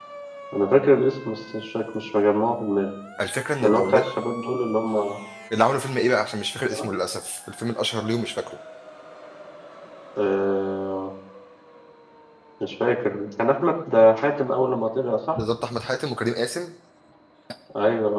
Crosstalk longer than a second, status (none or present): none